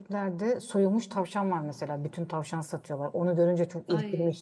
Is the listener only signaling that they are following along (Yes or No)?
Yes